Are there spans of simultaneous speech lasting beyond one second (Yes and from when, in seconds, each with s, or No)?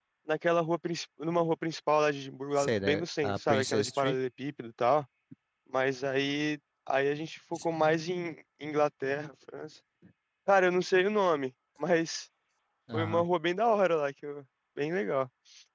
Yes, from 2.6 s